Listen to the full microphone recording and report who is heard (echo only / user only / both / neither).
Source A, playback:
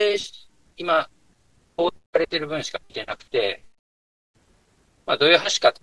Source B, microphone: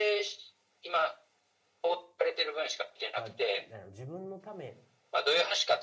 both